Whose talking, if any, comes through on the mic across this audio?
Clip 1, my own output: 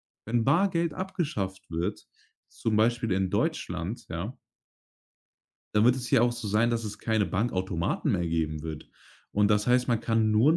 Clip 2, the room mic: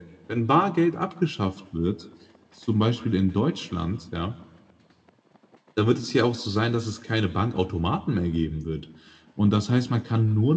echo only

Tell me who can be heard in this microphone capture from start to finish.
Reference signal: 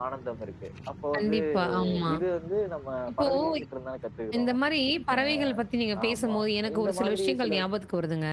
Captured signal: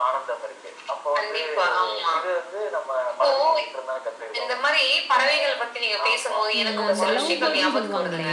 both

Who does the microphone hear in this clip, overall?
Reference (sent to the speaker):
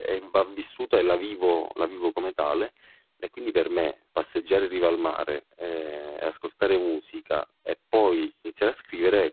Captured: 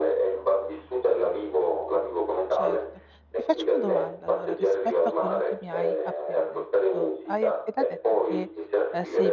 both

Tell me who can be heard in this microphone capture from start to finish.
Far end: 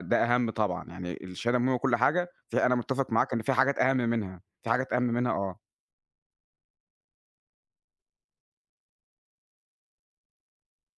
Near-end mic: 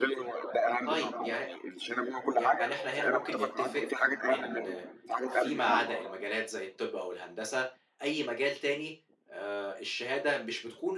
both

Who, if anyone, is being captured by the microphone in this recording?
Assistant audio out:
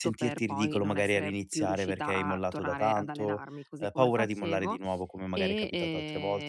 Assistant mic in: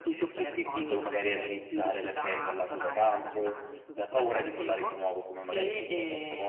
both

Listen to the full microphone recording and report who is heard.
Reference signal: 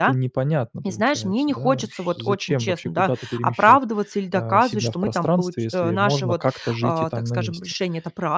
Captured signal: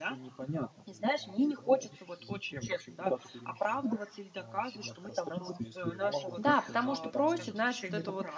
both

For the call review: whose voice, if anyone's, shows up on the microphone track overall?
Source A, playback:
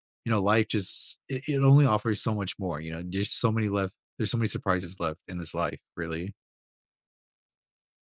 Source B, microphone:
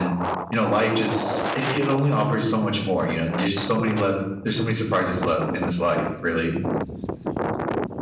echo only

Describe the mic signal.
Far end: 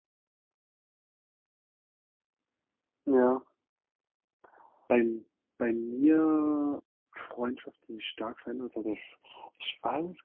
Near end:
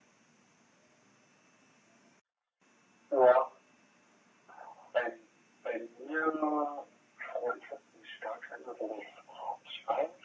echo only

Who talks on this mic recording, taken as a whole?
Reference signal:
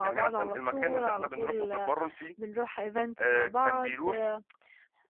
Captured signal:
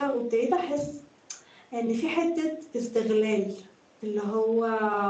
user only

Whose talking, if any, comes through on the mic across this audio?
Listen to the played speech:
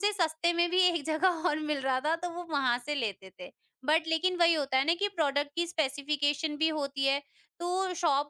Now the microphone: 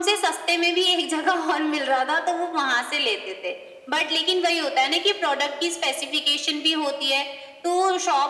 echo only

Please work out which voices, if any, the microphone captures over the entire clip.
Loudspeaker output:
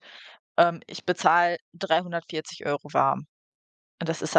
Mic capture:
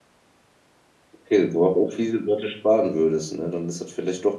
user only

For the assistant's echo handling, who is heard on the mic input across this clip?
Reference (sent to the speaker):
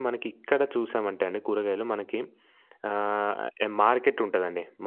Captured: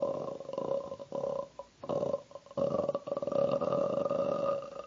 neither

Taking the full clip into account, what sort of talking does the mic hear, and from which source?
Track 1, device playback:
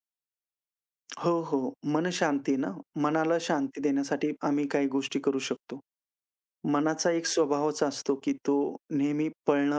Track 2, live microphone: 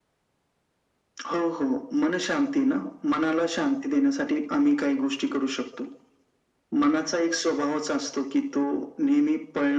echo only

